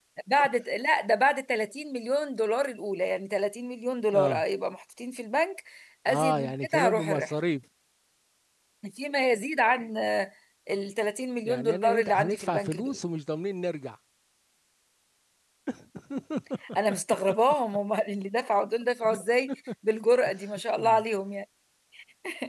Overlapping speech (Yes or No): Yes